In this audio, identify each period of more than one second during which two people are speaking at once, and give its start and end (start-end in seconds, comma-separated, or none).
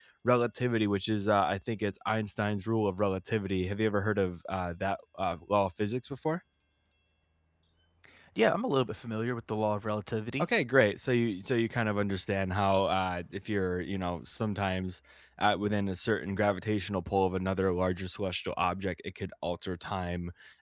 none